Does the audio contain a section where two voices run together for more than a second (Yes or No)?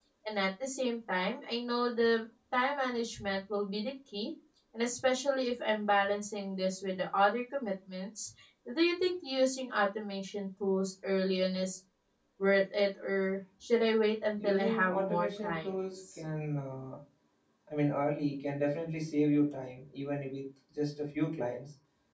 Yes